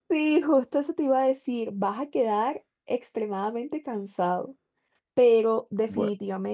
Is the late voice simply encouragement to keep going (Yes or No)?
Yes